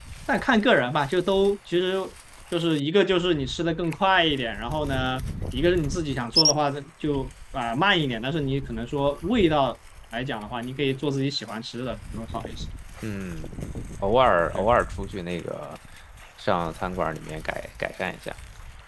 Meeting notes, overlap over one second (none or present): none